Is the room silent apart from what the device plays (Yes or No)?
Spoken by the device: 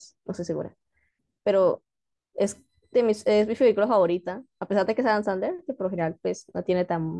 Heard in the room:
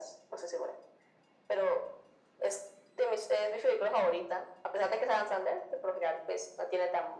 Yes